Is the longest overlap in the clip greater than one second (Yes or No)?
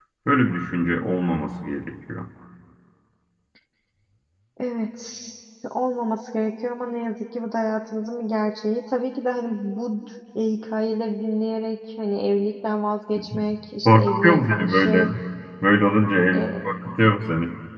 Yes